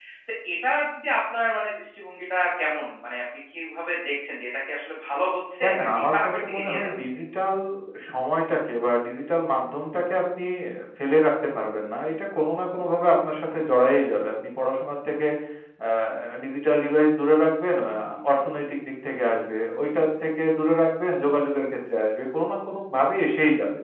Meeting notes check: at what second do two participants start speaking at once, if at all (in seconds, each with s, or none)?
5.6 s